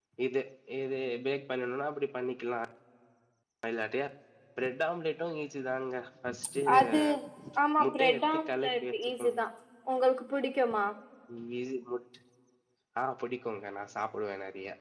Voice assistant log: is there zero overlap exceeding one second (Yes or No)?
Yes